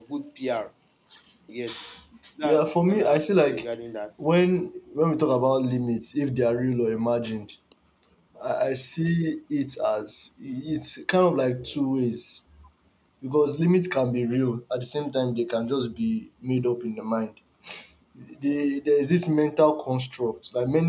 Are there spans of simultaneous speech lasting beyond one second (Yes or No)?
Yes